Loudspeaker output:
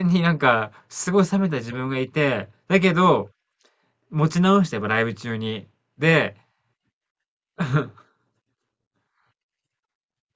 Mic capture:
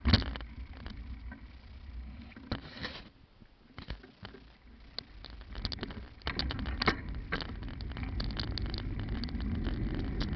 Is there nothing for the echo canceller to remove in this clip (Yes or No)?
Yes